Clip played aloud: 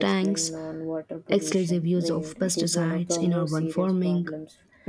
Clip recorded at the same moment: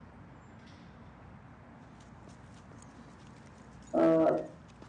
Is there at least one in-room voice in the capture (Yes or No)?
Yes